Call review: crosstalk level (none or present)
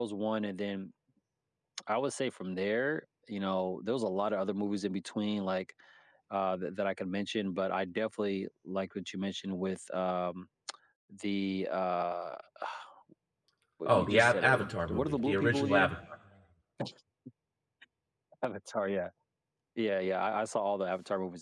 present